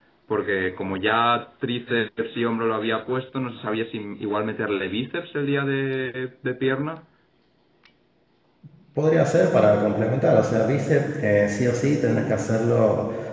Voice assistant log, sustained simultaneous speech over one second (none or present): none